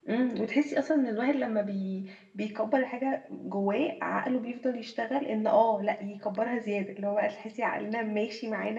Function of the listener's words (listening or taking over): listening